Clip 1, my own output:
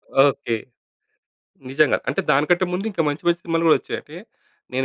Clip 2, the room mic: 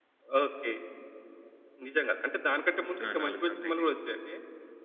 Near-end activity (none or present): present